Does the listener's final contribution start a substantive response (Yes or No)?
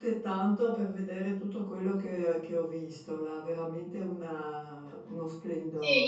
Yes